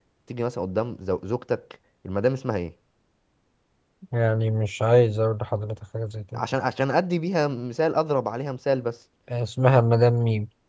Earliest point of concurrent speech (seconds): none

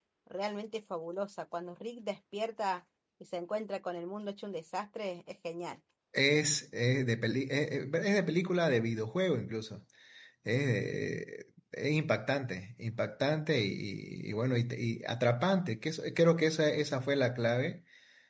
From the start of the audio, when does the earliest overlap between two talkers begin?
none

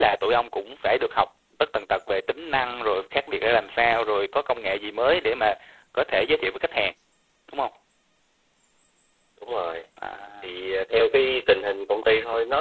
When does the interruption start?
none

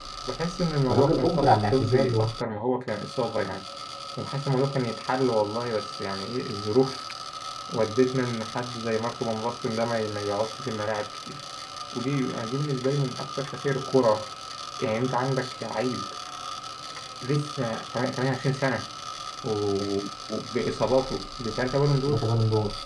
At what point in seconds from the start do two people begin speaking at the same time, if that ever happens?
0.9 s

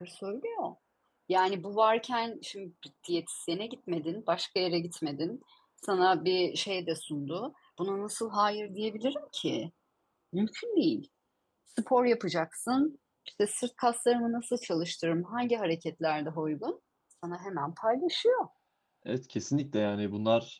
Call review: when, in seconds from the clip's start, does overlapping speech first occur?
none

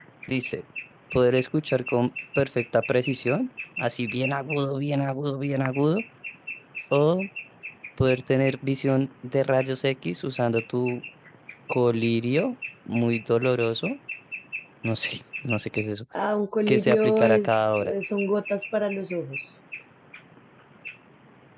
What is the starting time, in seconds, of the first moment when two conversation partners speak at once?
16.7 s

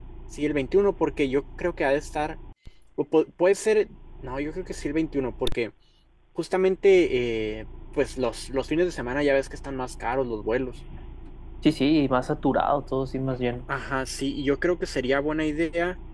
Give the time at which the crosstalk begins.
none

